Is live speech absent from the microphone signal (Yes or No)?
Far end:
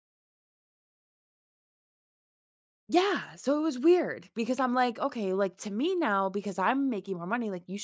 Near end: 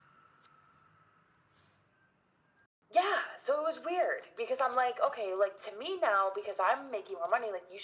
Yes